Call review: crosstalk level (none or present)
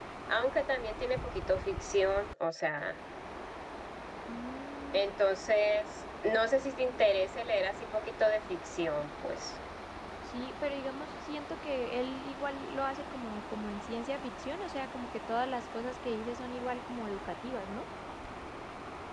none